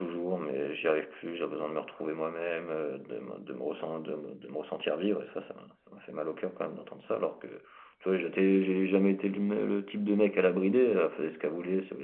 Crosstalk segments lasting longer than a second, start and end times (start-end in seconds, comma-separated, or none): none